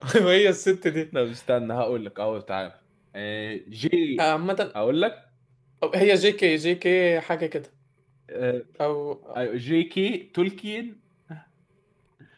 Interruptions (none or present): none